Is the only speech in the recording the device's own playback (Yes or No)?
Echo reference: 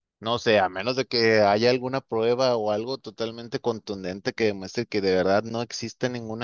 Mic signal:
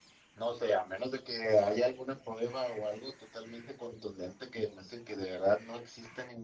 Yes